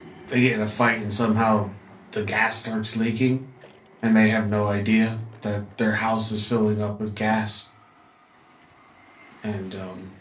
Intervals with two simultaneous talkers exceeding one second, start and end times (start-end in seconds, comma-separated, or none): none